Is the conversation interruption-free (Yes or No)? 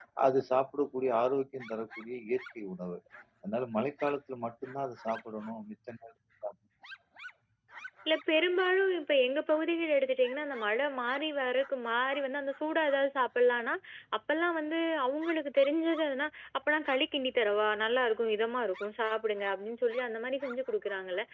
Yes